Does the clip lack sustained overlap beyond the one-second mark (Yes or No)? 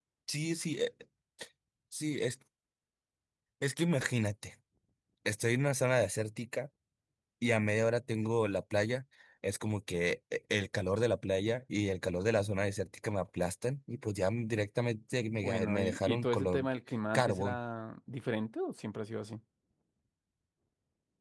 No